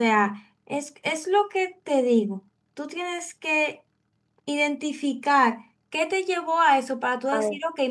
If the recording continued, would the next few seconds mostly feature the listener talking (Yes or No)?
No